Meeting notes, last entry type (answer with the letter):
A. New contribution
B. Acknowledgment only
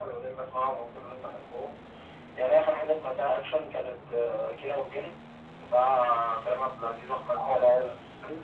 B